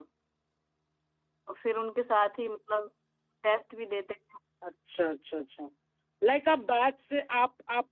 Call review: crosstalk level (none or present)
none